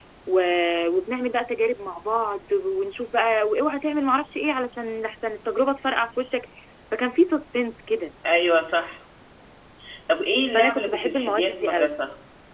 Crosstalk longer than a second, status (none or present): present